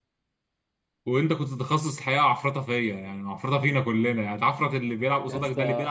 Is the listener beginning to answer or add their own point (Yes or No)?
No